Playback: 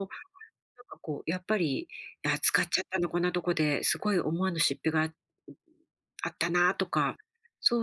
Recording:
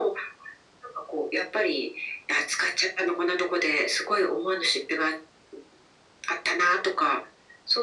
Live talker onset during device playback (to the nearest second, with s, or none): none